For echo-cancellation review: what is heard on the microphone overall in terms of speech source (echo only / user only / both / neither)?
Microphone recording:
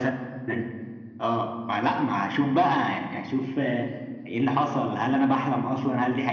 echo only